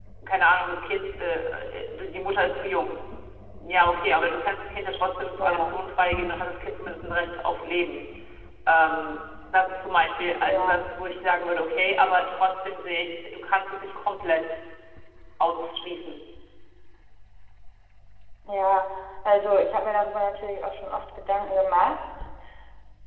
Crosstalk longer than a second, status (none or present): none